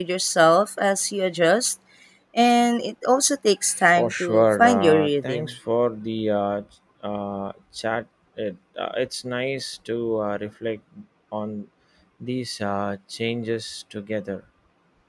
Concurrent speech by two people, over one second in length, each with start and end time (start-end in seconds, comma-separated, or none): 3.7-5.5